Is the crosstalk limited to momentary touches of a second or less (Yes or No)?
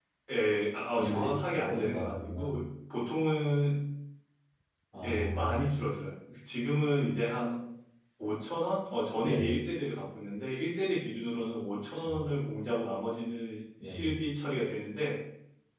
No